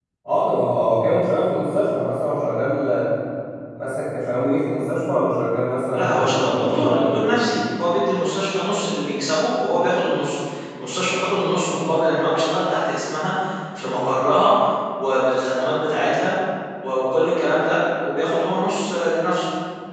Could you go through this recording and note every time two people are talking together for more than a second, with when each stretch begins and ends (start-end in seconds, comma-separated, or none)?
5.9-7.1